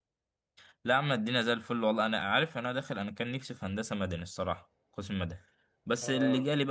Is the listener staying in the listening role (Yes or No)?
Yes